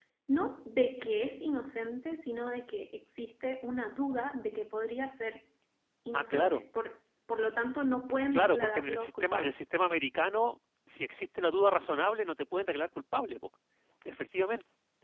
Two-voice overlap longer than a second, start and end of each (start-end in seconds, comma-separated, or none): 8.3-9.6